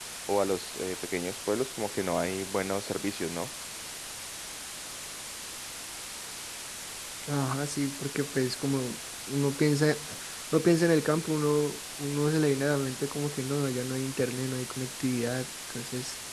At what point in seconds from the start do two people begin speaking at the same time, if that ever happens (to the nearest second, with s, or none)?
none